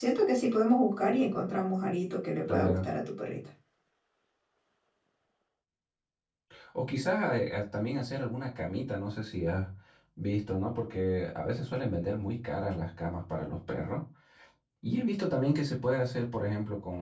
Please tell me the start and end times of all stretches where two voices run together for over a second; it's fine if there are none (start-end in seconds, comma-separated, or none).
none